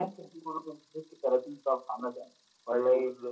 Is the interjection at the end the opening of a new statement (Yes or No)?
Yes